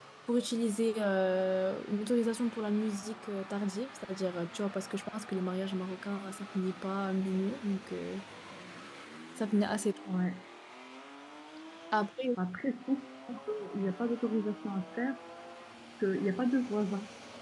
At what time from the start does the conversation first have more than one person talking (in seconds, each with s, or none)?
none